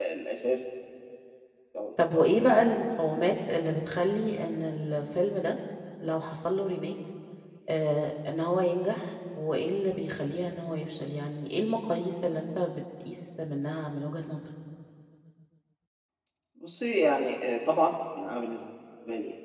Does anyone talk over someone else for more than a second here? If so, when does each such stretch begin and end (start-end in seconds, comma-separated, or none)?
none